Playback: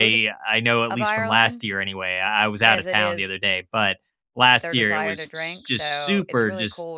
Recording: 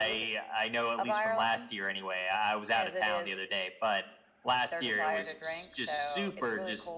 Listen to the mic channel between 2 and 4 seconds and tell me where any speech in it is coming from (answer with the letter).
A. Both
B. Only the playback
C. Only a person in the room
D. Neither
B